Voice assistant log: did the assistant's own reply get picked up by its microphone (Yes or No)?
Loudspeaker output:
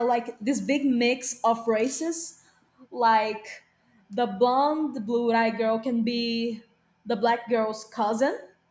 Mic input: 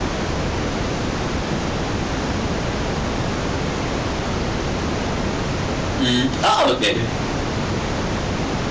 No